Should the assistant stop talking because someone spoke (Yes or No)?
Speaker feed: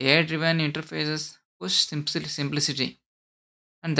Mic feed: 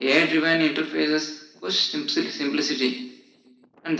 No